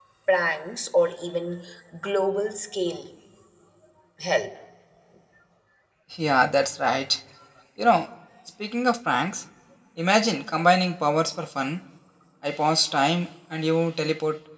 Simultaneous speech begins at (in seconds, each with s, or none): none